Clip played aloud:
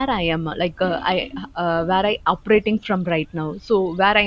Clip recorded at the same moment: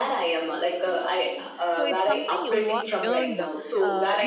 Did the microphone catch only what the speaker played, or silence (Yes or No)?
No